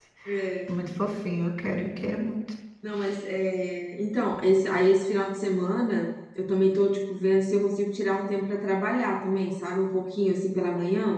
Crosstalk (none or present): none